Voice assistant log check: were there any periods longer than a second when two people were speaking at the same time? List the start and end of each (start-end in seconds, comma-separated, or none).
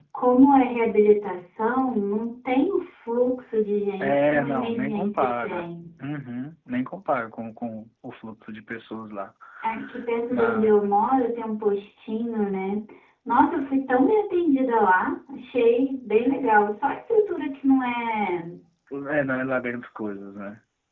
4.0-5.7